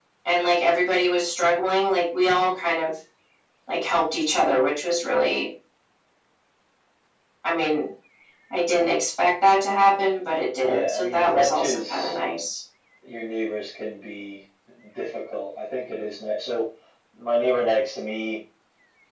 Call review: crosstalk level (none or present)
present